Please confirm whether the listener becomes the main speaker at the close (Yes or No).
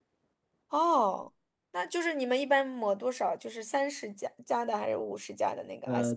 Yes